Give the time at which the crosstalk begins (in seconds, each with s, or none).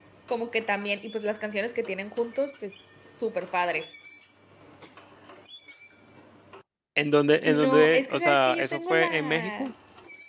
7.5 s